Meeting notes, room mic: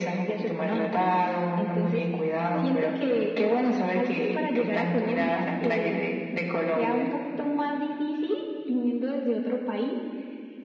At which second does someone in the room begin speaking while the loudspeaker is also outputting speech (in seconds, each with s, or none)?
none